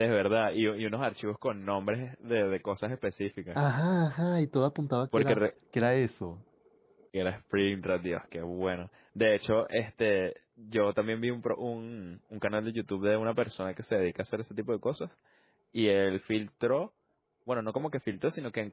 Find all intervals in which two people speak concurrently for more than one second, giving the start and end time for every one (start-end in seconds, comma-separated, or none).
none